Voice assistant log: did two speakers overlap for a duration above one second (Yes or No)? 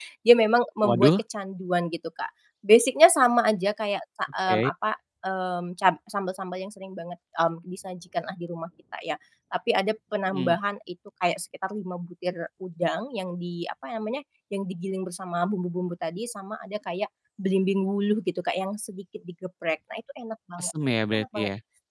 No